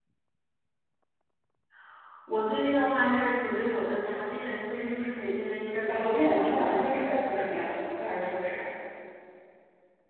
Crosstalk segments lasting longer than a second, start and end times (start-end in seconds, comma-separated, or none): 5.9-7.1